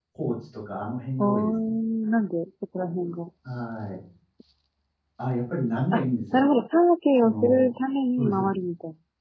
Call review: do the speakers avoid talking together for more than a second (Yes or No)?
Yes